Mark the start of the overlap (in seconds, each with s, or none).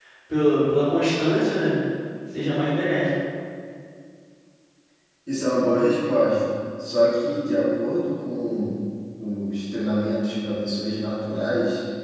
none